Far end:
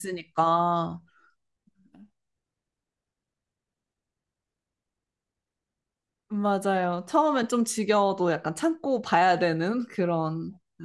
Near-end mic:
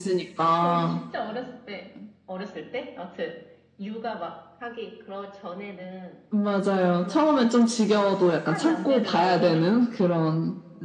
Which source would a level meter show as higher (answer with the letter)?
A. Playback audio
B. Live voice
A